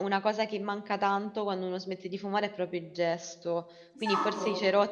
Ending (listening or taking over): listening